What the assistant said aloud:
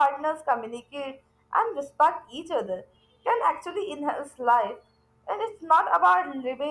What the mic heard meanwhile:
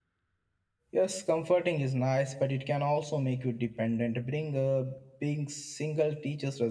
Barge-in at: 0.9 s

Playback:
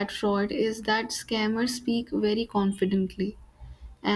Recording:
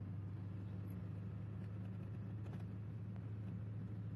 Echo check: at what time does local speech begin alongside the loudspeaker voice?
none

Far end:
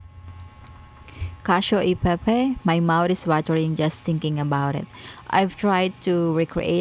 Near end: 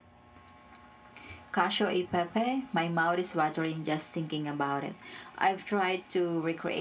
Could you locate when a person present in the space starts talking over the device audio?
none

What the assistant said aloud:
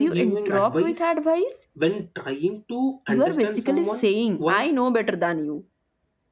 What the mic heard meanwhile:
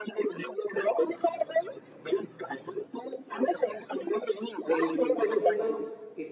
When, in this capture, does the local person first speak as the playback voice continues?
4.7 s

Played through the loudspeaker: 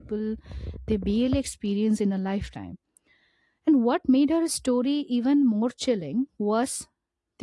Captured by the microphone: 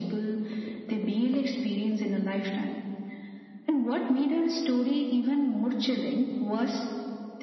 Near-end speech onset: none

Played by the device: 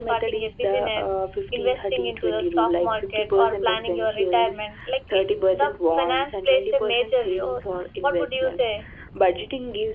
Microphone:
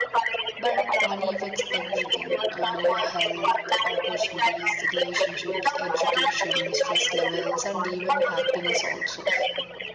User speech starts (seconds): 0.6 s

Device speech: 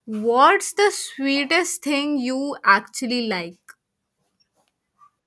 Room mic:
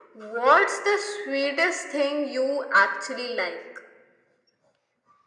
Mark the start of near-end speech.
none

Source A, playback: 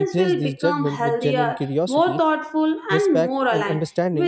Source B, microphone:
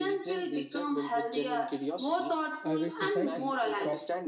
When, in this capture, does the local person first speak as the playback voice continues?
2.6 s

